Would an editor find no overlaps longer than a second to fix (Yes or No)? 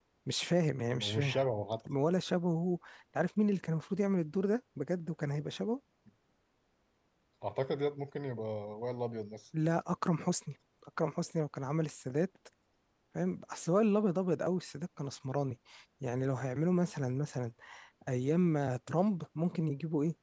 Yes